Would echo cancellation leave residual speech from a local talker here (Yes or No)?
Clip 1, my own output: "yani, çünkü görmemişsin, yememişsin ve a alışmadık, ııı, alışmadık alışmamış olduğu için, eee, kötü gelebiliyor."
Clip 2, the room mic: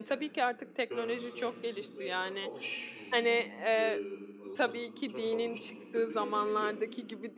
Yes